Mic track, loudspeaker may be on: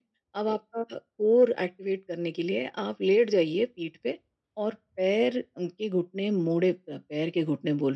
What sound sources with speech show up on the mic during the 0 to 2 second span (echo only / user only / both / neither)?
echo only